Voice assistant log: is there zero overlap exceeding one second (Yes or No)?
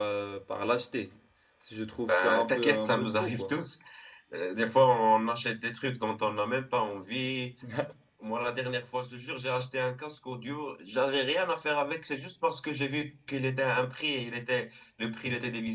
No